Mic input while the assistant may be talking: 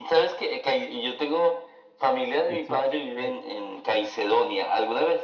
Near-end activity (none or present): present